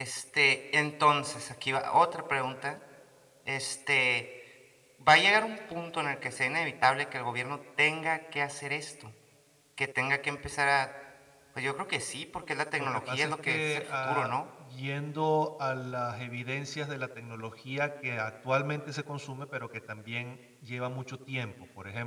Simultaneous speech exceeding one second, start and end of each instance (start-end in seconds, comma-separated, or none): 12.8-14.4